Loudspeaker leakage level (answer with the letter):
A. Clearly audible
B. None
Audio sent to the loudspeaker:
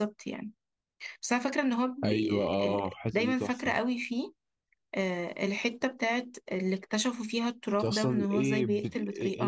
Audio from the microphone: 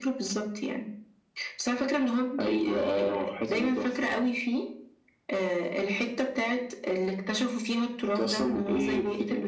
A